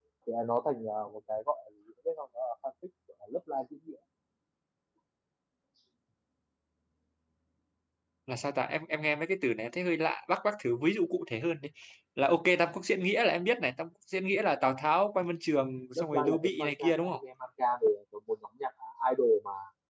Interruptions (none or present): present